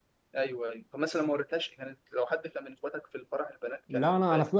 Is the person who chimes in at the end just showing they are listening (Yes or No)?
No